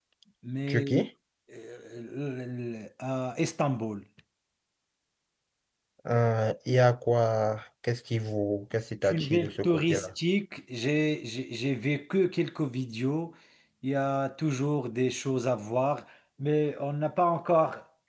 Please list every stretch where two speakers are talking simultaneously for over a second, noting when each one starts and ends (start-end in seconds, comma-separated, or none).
8.8-10.1